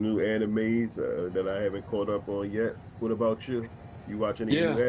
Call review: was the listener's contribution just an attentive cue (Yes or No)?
No